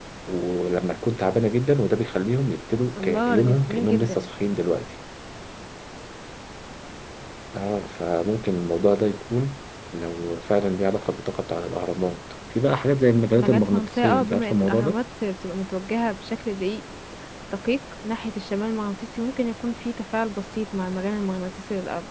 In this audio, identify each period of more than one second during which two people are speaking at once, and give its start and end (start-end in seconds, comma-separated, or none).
3.0-4.3, 13.4-15.0